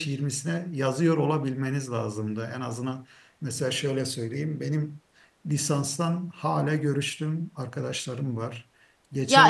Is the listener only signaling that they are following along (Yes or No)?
No